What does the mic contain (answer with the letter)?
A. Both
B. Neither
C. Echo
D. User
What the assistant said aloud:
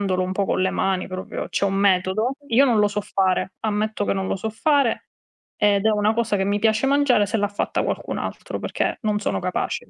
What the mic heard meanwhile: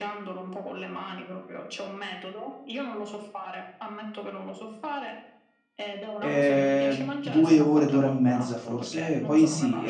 A